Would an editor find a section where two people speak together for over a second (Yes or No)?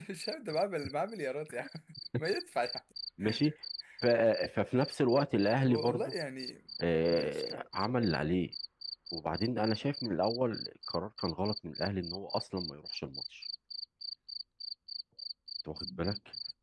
No